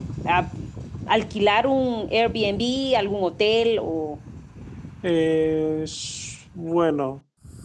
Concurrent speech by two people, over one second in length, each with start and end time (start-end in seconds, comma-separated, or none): none